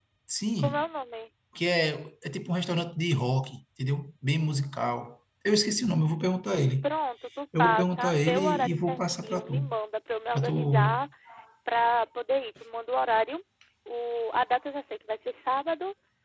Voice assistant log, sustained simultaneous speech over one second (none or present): present